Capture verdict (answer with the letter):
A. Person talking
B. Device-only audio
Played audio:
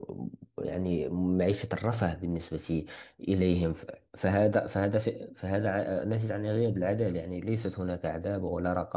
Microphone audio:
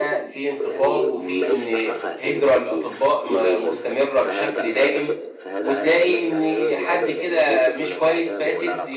A